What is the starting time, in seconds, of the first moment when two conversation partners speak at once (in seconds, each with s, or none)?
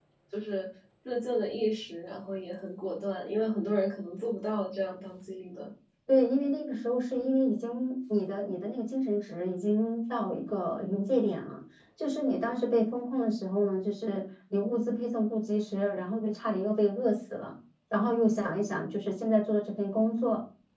none